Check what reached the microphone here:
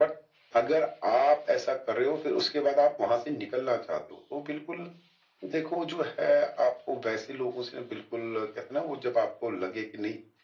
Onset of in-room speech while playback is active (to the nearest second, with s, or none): none